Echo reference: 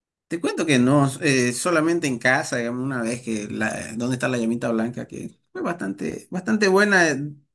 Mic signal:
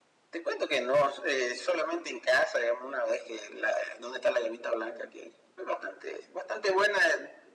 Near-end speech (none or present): none